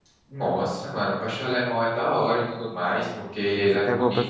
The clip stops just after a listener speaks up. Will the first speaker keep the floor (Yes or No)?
No